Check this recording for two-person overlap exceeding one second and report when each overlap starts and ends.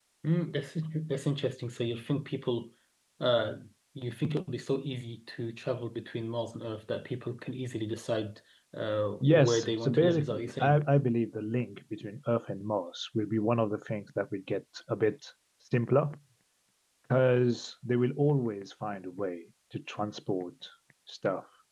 9.2-10.8

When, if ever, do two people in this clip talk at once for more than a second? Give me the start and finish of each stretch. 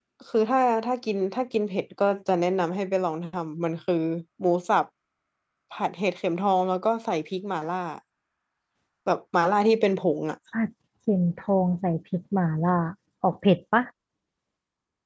none

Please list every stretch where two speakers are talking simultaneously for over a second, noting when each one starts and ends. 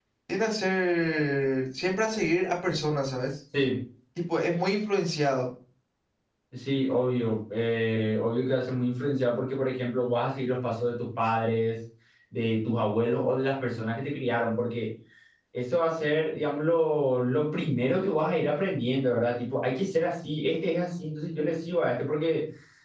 none

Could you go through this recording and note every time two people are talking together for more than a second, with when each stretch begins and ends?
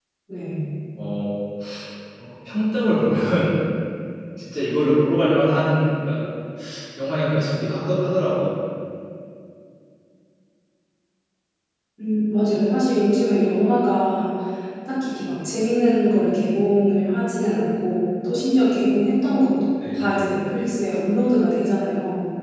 none

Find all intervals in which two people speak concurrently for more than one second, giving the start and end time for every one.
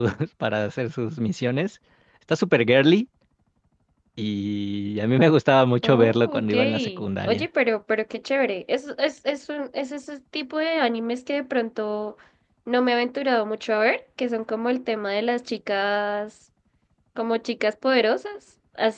5.8-7.5

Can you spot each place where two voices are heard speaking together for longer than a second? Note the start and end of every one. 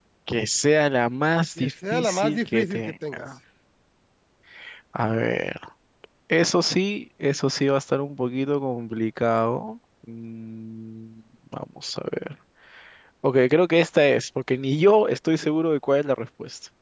1.6-3.2

